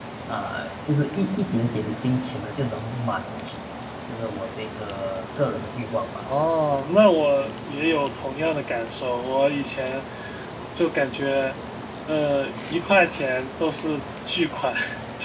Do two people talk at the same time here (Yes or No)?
No